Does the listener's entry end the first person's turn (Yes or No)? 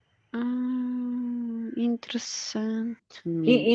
Yes